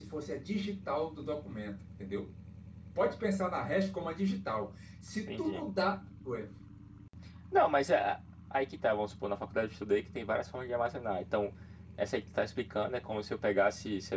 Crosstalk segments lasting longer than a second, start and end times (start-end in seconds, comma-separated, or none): none